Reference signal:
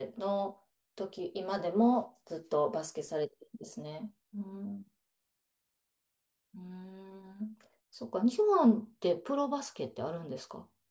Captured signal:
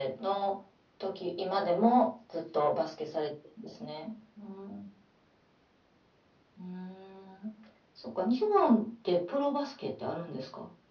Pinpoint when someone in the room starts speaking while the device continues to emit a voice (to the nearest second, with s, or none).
none